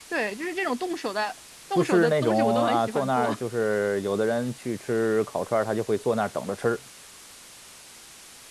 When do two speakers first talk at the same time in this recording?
1.8 s

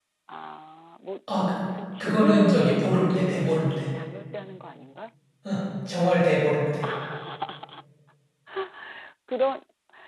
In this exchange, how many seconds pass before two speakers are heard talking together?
2.0 s

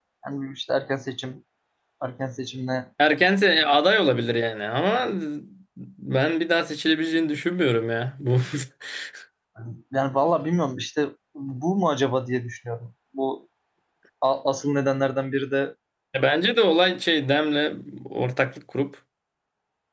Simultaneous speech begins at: none

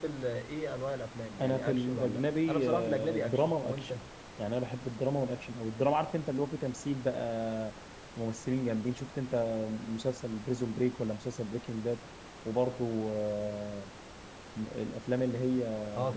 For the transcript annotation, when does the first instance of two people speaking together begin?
1.4 s

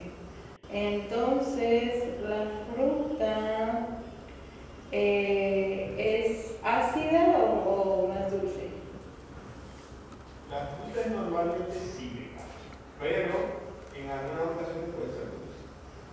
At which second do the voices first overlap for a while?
none

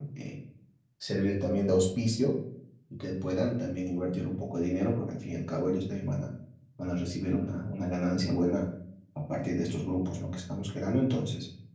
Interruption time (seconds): none

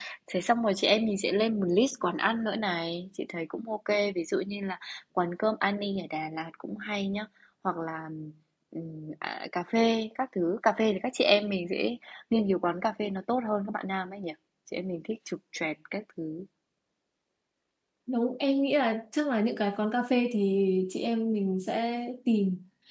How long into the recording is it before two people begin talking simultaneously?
none

